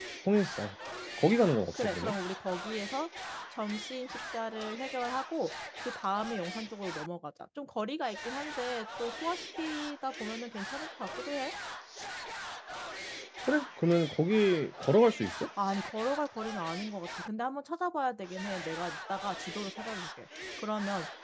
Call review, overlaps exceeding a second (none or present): none